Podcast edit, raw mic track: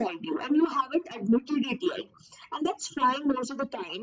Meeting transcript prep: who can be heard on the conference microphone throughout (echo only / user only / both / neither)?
echo only